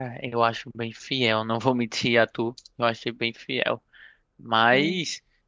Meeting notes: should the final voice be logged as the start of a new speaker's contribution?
No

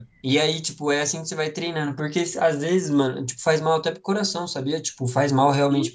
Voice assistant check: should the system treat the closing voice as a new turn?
Yes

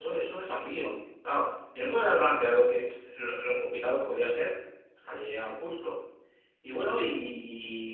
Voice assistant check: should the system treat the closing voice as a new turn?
No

